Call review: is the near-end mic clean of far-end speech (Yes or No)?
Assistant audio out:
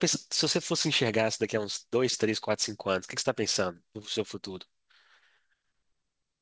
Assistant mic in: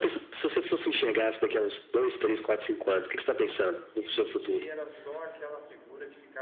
No